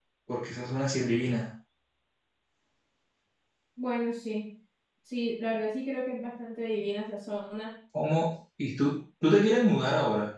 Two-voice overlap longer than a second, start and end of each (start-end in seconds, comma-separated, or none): none